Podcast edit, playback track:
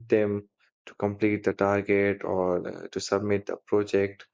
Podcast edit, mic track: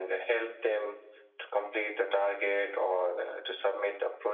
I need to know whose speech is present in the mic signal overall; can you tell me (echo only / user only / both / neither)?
echo only